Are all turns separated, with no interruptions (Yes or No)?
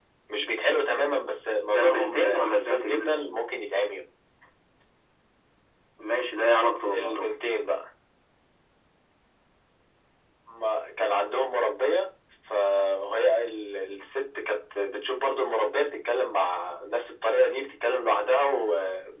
No